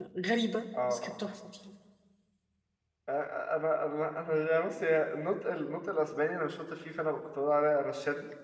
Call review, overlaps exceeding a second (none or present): none